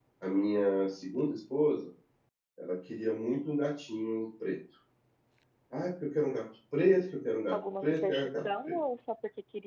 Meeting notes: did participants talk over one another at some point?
Yes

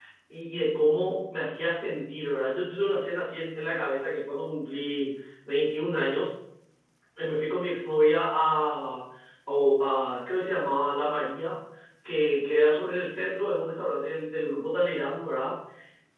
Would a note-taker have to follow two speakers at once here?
No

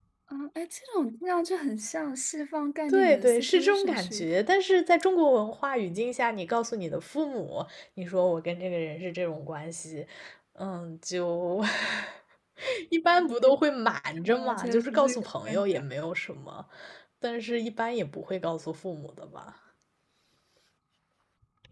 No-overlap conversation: No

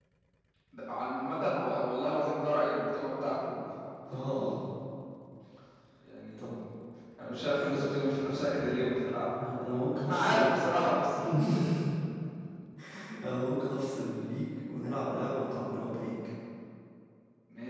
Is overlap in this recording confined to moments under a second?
Yes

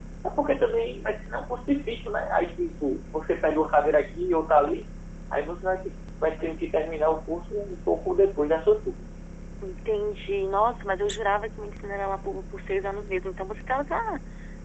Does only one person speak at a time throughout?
Yes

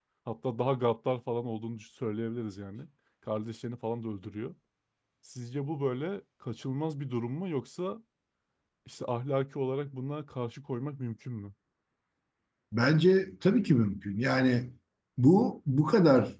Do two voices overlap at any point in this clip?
No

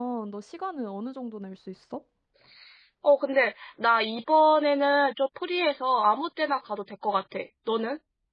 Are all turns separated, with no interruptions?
Yes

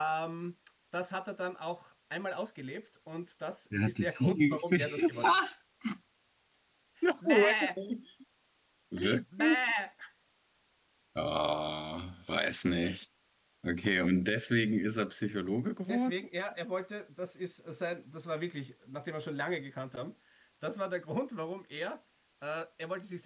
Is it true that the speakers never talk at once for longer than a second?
No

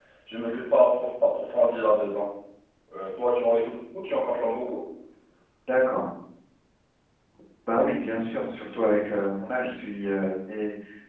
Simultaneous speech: No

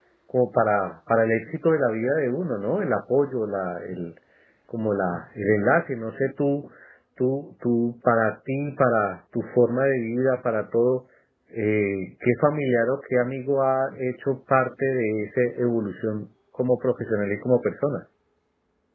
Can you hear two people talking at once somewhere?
No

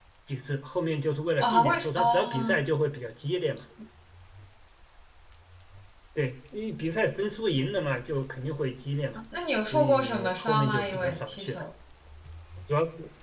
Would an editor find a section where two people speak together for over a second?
Yes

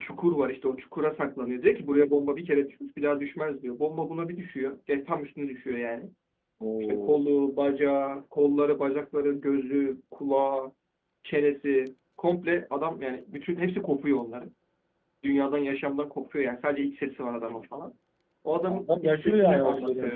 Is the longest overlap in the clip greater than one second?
Yes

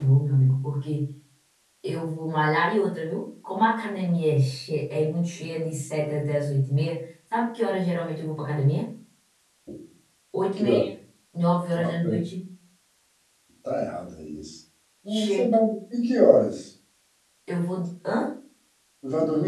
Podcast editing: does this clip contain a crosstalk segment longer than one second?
No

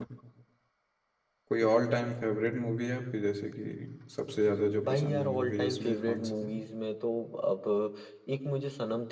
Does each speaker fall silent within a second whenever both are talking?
No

